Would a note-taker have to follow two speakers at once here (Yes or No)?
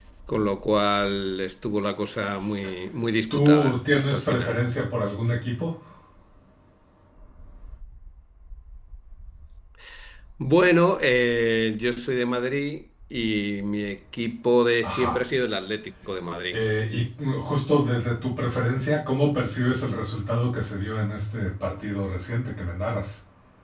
Yes